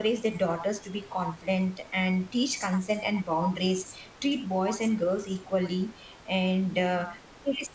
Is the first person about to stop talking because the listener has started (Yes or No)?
No